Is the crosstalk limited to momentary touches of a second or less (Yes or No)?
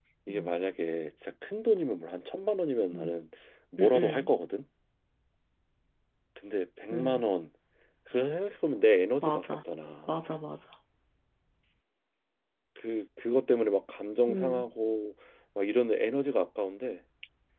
Yes